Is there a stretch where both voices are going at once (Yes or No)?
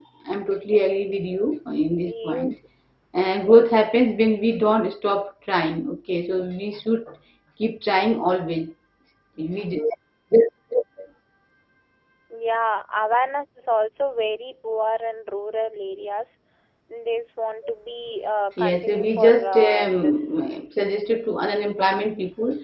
Yes